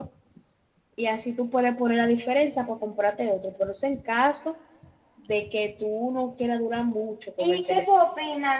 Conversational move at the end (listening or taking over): taking over